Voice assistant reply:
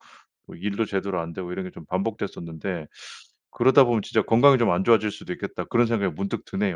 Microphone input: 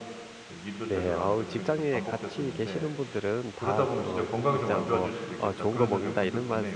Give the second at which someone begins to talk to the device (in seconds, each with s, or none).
0.9 s